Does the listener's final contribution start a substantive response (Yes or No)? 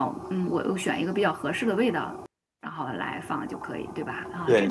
Yes